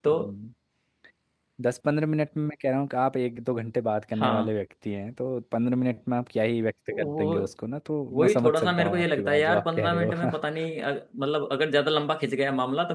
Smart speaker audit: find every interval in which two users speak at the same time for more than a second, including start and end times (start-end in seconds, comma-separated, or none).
8.2-10.1